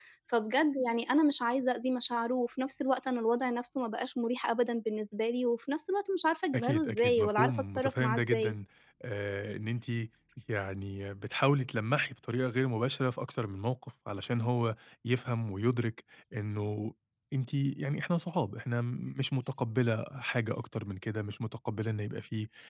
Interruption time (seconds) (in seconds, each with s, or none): 6.5 s